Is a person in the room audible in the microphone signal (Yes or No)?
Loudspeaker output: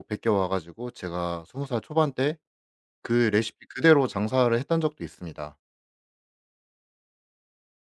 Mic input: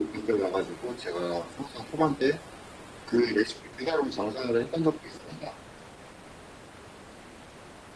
No